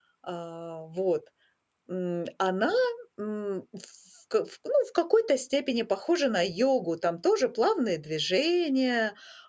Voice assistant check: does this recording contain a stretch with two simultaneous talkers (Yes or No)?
No